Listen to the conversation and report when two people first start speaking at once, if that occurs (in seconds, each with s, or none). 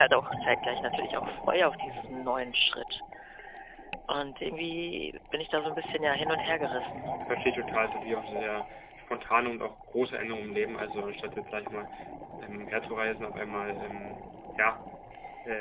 none